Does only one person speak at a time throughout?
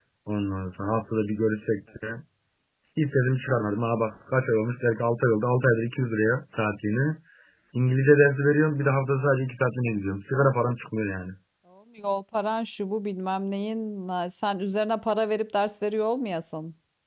Yes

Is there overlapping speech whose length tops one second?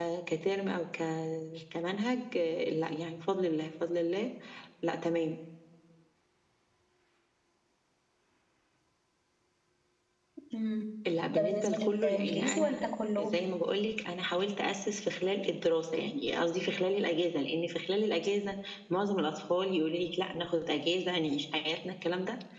Yes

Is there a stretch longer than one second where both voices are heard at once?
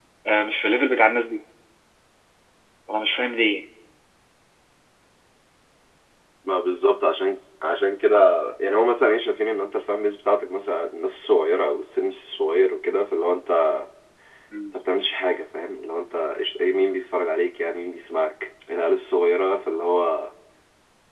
No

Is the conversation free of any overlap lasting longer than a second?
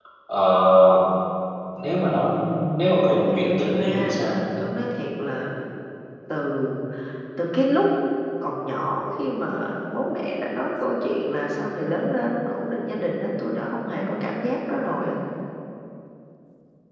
No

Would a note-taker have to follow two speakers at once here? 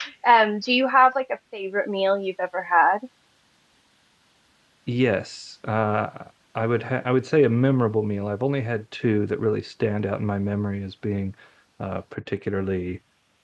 No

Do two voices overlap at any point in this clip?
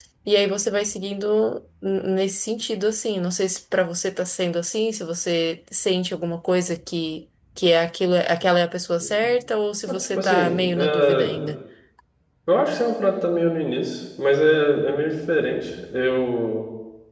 Yes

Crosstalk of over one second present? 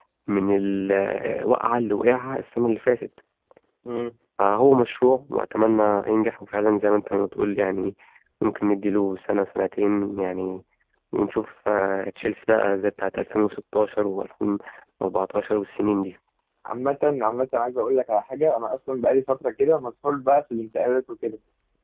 No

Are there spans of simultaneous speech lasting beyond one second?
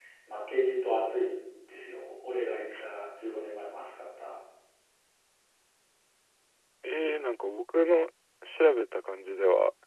No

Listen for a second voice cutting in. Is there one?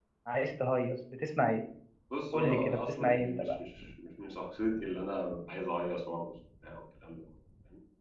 Yes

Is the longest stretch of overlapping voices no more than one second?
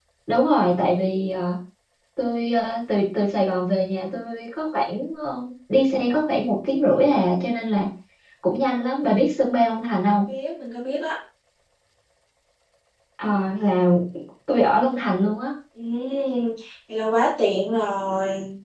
Yes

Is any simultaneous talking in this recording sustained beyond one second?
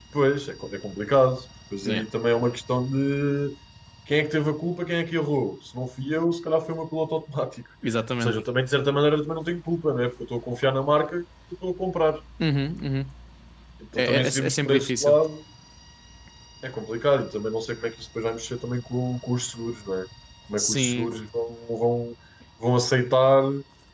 Yes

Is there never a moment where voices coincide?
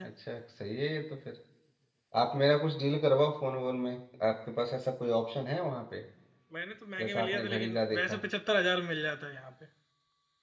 No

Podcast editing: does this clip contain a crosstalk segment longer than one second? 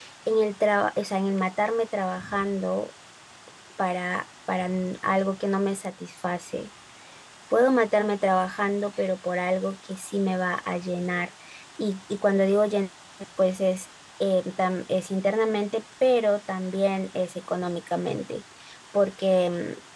No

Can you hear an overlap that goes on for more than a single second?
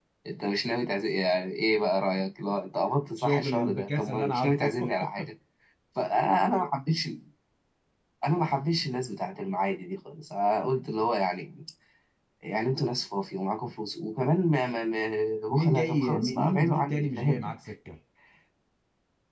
Yes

